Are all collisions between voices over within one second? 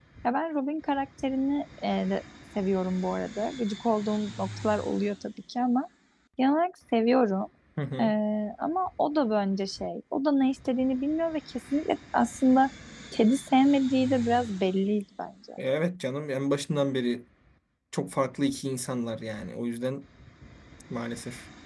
Yes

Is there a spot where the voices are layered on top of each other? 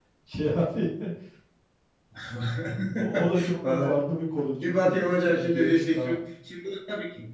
Yes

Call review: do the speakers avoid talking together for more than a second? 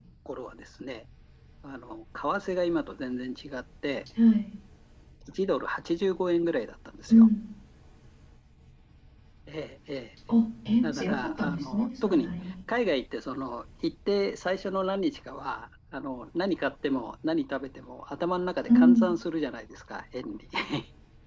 No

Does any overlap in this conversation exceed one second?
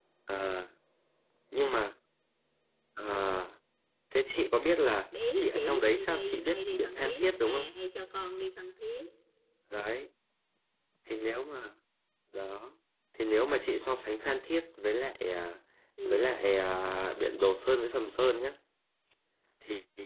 Yes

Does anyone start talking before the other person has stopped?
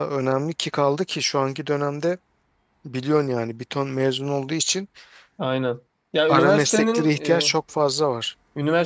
Yes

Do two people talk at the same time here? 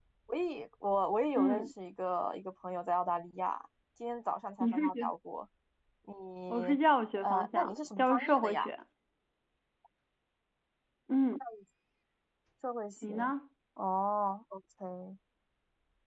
Yes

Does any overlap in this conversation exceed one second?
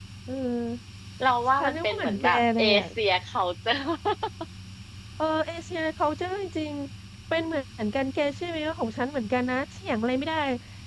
Yes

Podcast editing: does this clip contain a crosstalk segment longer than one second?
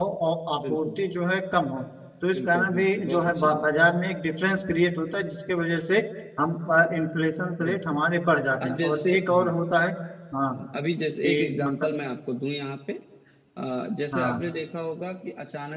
Yes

